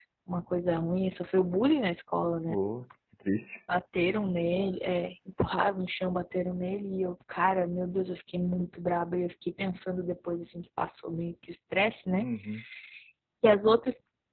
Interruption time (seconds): none

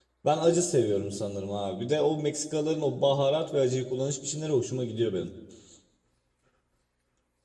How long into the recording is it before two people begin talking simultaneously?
none

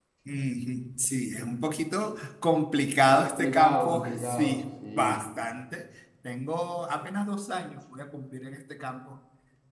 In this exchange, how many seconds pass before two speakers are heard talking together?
3.1 s

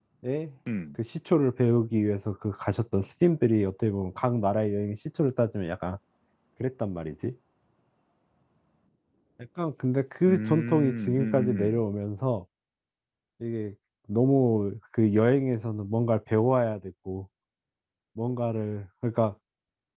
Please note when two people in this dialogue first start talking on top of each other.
10.2 s

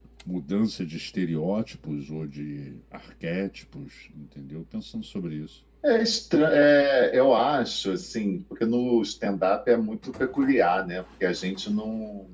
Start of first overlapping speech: none

